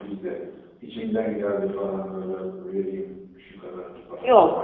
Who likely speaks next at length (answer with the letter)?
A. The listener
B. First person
A